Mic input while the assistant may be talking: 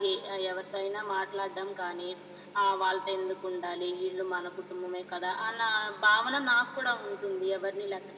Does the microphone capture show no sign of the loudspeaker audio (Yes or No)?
No